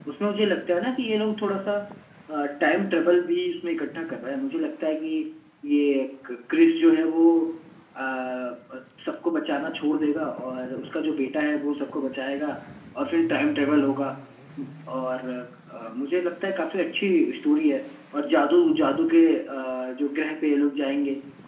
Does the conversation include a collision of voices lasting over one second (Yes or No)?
No